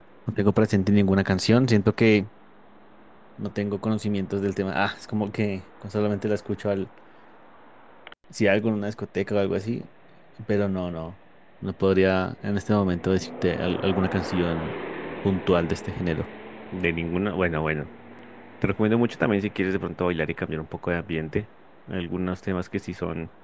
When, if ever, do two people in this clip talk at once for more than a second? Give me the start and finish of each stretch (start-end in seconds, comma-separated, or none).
none